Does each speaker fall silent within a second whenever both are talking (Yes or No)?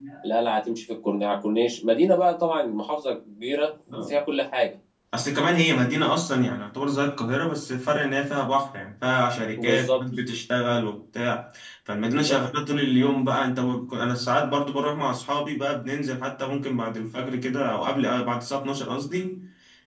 Yes